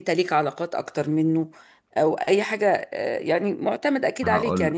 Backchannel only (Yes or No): Yes